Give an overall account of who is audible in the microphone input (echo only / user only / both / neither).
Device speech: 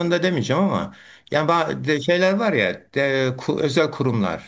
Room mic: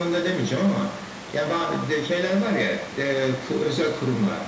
echo only